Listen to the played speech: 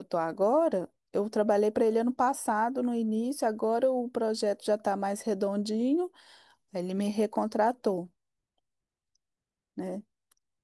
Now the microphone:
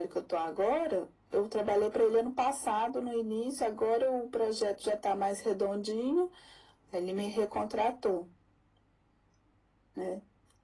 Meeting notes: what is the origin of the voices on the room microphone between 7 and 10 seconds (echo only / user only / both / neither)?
echo only